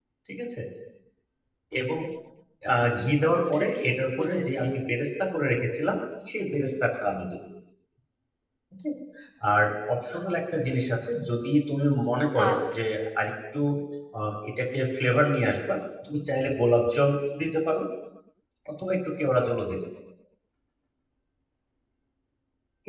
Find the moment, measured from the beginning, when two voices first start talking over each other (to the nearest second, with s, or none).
3 s